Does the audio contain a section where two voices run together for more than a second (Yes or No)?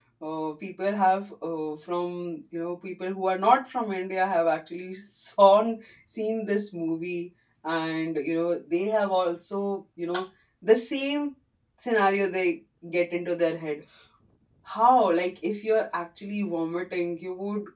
No